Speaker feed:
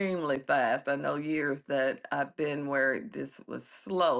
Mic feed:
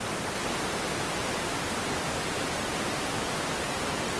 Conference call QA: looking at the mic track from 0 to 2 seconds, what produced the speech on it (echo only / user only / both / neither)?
neither